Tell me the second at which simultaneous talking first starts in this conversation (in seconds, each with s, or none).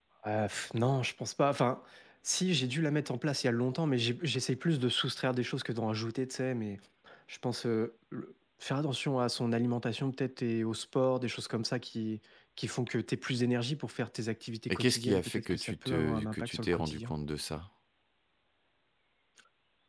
14.7 s